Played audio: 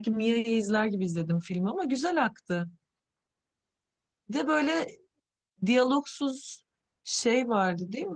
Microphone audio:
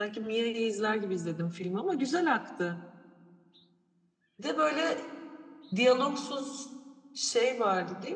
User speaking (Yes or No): No